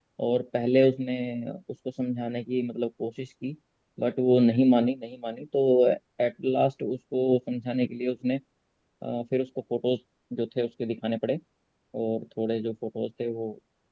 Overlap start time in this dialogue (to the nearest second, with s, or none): none